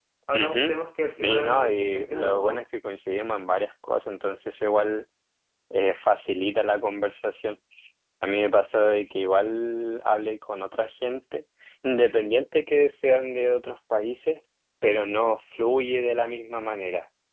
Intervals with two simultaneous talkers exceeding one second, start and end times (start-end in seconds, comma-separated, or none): 1.2-2.6